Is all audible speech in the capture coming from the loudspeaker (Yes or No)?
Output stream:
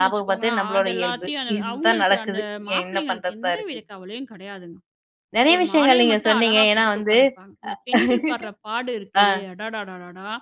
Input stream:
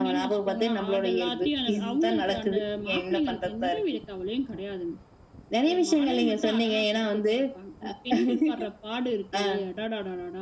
Yes